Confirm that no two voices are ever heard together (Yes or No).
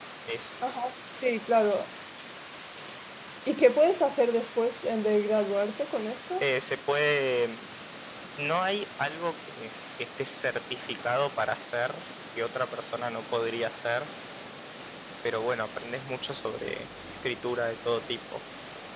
Yes